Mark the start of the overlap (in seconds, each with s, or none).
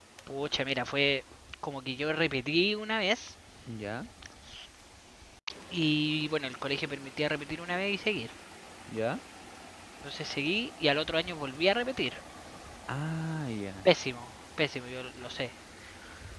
none